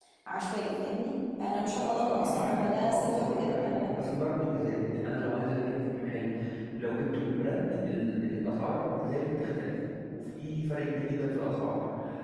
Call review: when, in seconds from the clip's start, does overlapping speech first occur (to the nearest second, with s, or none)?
2 s